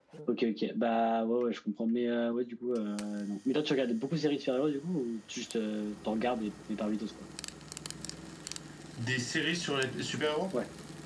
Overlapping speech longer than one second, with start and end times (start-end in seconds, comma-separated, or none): none